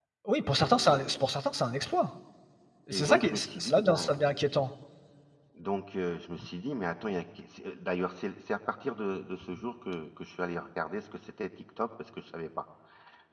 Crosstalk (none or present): present